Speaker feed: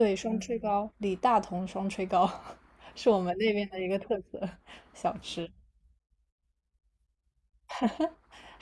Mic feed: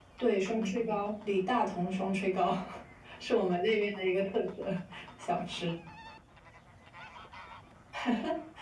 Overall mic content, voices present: echo only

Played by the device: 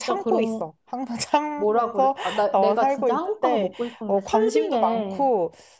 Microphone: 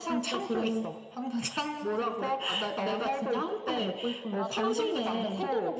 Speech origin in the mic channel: both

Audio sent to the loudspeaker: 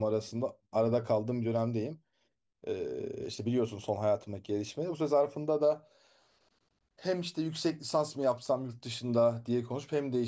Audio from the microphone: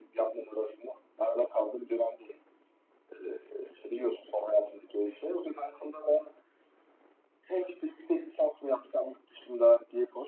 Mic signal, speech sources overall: echo only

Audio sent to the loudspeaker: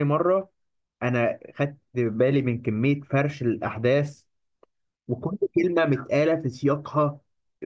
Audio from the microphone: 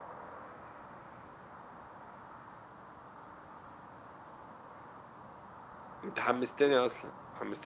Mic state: user only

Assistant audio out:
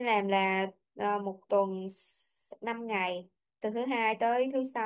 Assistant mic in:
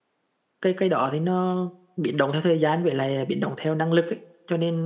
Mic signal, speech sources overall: user only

